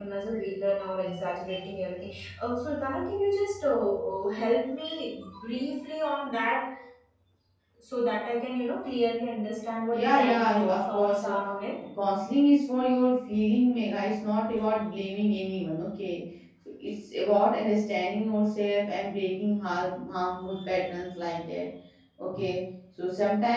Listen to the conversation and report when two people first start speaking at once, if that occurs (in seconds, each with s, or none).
9.9 s